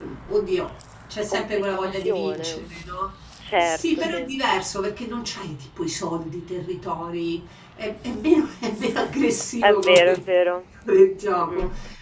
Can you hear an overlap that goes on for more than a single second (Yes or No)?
Yes